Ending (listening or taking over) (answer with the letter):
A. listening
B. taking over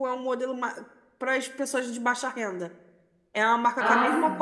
A